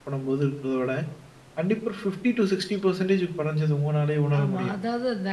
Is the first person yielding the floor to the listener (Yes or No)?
Yes